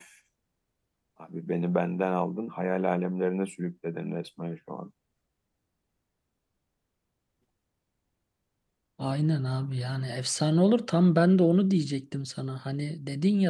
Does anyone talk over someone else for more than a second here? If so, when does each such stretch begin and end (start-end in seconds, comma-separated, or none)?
none